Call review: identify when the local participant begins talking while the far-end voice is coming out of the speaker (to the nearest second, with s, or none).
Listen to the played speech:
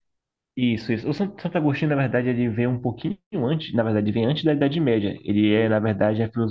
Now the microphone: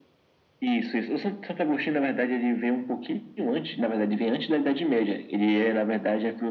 none